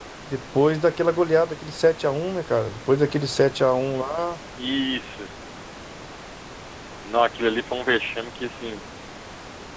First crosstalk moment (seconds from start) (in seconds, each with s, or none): none